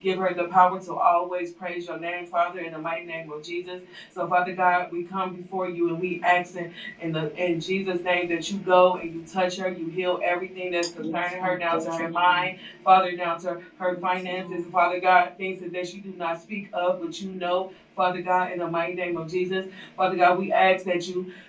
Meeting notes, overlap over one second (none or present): present